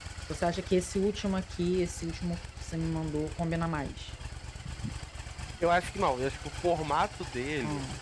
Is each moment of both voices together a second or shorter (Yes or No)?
Yes